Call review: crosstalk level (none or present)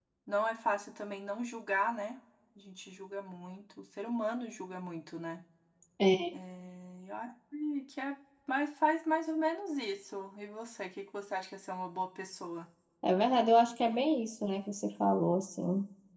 none